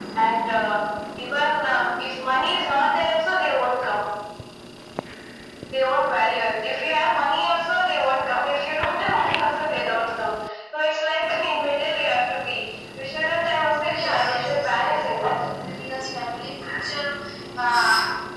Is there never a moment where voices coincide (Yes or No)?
No